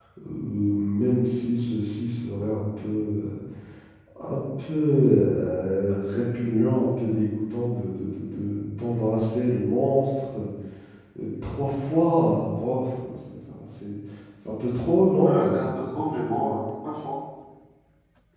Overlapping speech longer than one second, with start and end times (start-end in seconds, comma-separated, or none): 15.2-16.5